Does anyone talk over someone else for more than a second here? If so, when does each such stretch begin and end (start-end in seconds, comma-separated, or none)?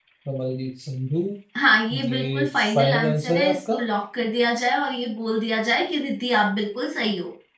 2.1-3.8